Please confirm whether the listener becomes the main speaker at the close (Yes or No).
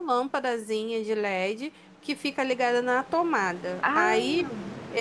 No